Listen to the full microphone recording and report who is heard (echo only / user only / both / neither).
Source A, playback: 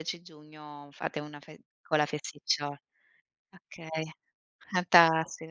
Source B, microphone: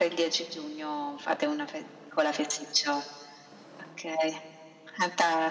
echo only